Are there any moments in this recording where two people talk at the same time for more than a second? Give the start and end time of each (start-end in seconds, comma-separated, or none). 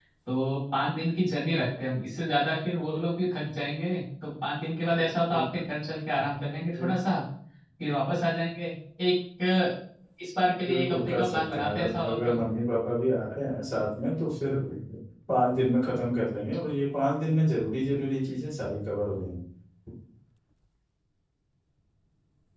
10.7-12.3